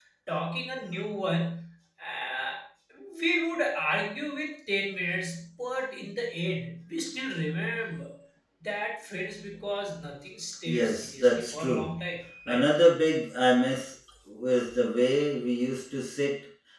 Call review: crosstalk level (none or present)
present